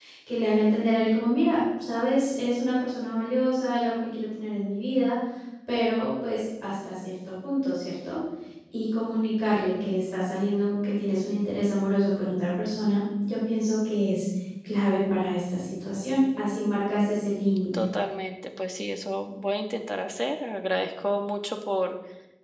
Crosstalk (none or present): none